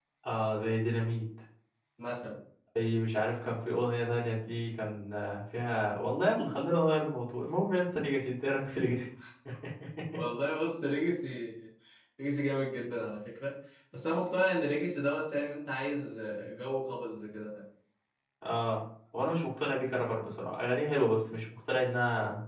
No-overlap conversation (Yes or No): Yes